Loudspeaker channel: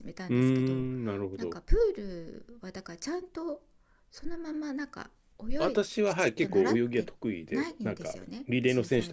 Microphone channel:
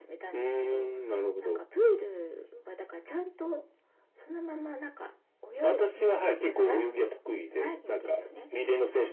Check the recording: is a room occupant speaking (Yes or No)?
Yes